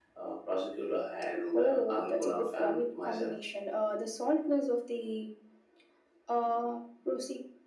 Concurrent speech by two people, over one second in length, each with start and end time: 1.5-3.3

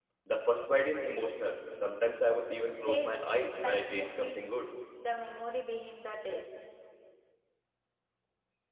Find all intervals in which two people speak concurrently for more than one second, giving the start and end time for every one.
2.7-4.5

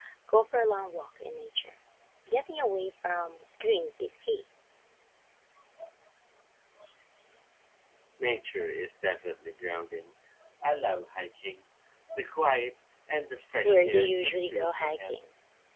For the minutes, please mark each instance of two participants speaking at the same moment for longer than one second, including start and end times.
13.6-15.1

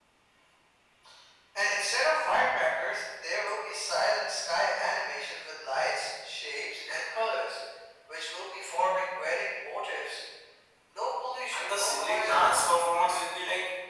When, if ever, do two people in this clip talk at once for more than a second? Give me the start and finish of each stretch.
11.5-13.2

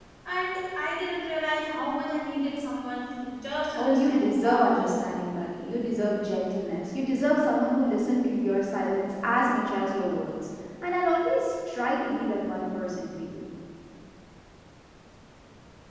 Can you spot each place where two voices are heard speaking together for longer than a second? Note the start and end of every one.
3.8-5.1

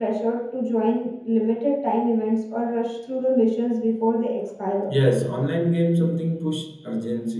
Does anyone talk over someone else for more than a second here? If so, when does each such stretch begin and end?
none

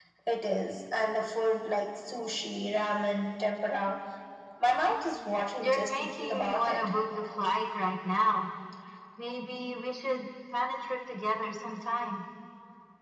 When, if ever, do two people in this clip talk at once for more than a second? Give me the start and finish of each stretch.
5.6-6.8

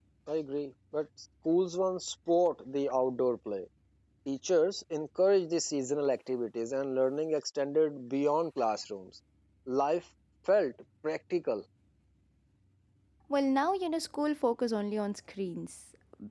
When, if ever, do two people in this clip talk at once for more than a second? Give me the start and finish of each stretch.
none

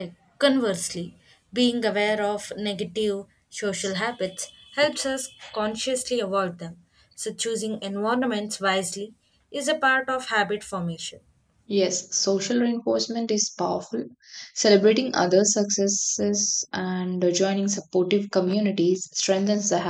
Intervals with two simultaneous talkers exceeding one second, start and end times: none

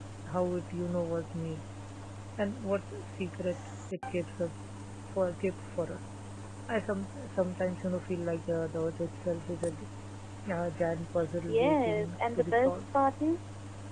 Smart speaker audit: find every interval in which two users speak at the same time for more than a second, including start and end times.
11.5-12.8

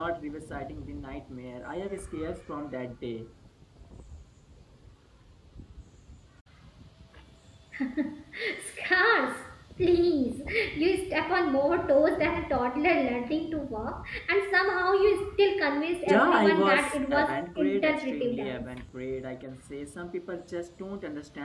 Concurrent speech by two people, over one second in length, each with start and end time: 16.1-18.6

